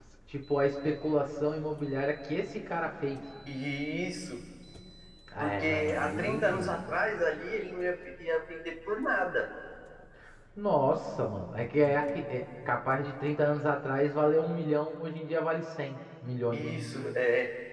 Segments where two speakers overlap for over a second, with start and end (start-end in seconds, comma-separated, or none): 5.4-6.8